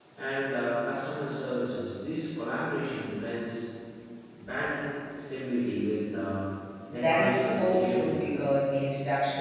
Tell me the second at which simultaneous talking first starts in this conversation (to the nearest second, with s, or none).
7 s